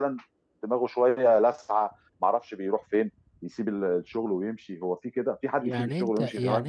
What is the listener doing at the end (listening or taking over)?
taking over